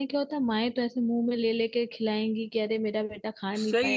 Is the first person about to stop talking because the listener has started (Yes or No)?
Yes